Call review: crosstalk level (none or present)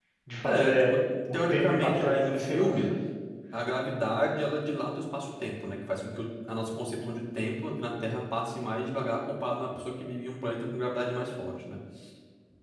present